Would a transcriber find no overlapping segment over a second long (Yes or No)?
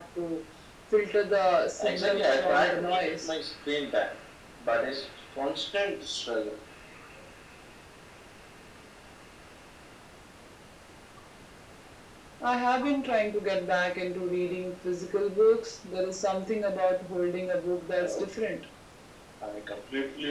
No